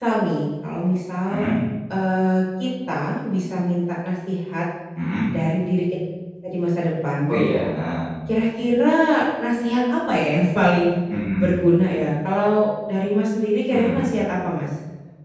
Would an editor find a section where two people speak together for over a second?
No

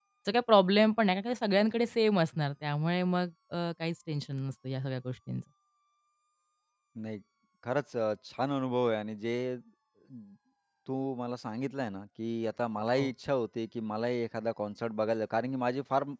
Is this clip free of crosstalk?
Yes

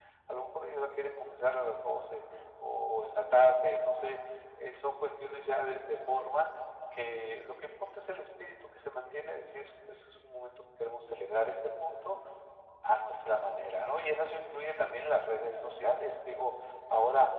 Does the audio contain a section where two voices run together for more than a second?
No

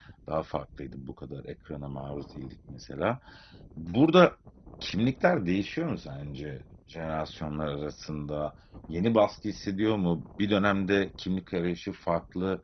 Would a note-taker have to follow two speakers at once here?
No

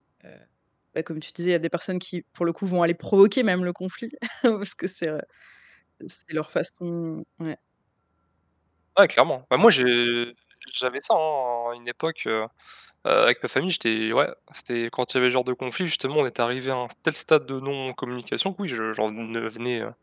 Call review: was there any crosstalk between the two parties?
No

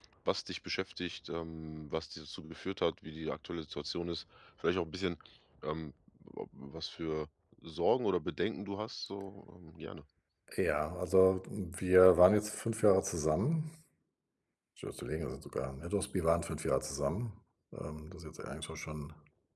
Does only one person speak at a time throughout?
Yes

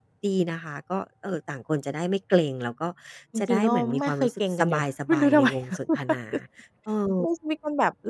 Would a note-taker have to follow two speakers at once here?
Yes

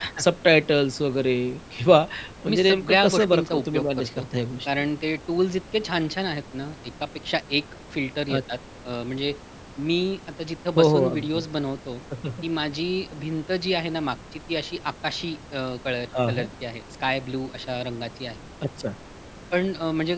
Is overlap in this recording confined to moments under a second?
No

